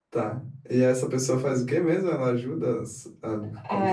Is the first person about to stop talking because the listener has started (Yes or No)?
Yes